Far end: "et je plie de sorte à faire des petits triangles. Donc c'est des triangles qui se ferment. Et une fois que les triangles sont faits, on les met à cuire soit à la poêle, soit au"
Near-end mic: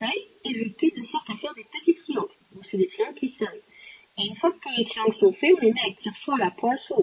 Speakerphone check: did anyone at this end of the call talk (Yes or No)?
No